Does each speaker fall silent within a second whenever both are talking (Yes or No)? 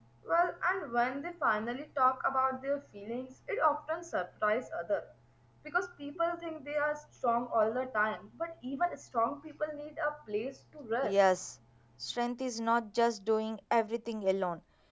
Yes